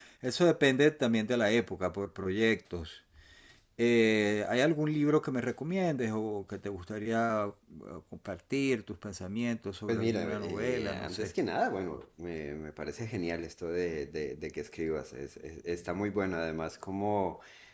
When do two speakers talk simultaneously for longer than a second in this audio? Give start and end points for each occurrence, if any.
9.9-11.3

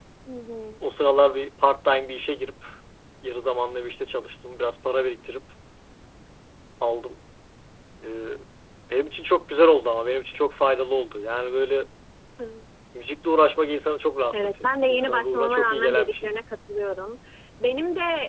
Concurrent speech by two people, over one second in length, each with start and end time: 14.3-16.3

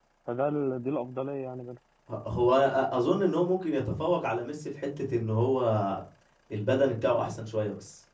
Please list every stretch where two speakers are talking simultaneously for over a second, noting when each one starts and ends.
none

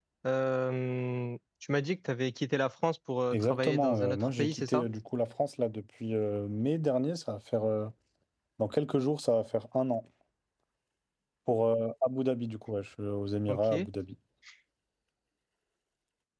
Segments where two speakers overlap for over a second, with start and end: 3.3-4.8

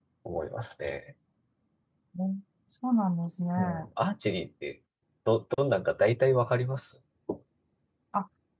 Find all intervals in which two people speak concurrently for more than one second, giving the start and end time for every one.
none

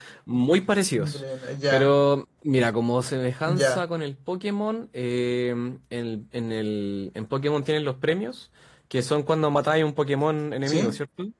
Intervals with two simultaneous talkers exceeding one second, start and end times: none

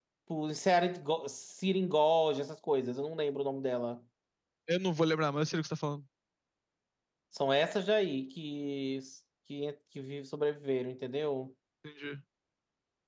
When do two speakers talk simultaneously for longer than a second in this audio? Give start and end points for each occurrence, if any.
none

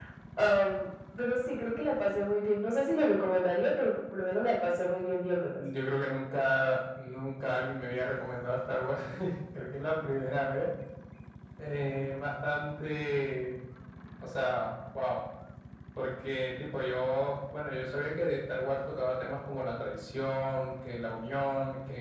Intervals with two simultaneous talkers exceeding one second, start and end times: none

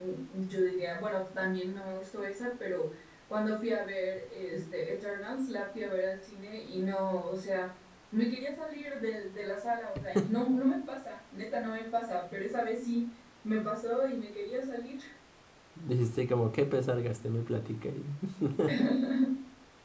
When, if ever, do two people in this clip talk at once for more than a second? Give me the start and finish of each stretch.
none

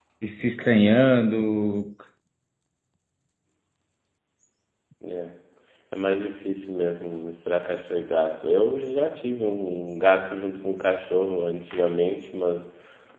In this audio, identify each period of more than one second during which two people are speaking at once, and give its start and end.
none

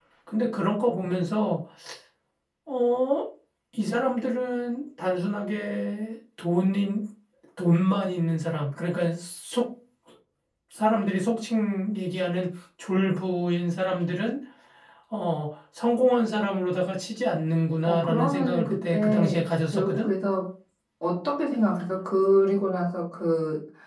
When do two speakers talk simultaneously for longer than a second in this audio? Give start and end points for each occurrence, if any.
17.9-20.1

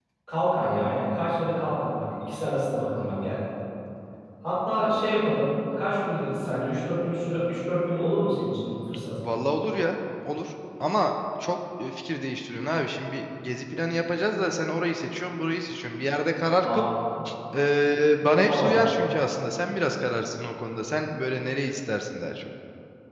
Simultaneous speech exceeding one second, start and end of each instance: none

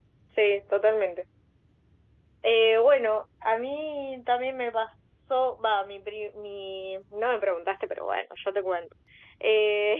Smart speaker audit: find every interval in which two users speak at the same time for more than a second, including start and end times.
none

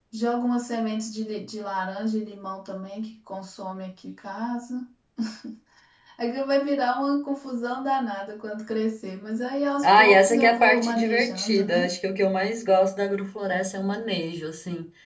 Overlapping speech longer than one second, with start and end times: 9.8-11.9

